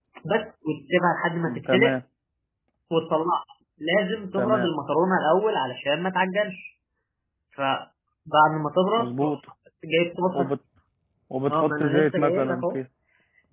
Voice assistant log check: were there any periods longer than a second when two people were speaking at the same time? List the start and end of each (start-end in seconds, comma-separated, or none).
11.5-12.8